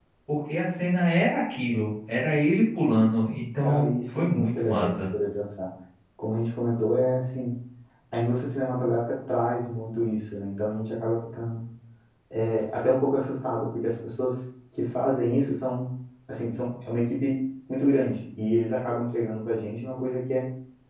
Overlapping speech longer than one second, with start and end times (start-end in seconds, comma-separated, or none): 3.6-5.0